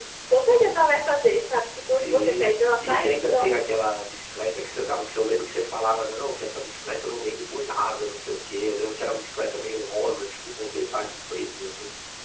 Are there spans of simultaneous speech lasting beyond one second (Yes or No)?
Yes